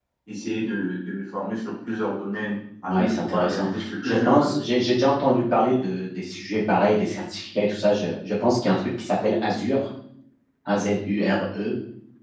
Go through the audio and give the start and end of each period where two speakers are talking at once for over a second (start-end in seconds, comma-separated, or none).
2.8-4.5